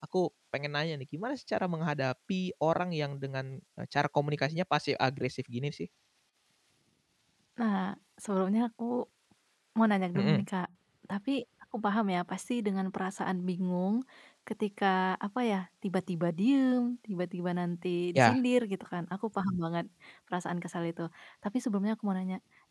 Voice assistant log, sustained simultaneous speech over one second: none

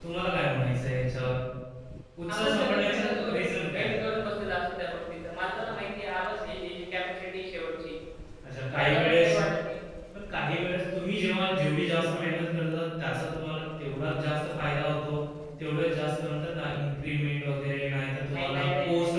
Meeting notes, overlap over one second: present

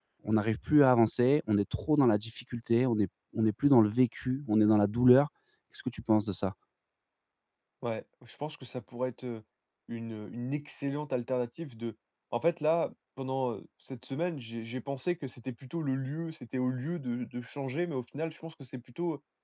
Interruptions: none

